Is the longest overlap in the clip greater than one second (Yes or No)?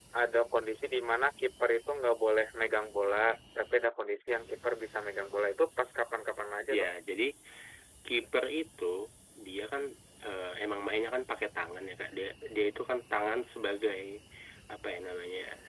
No